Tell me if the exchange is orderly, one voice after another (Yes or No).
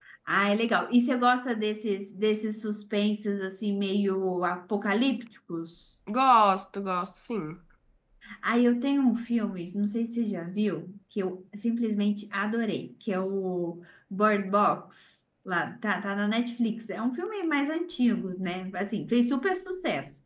Yes